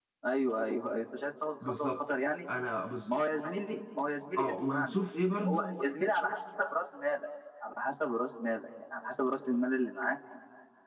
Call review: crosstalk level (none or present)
present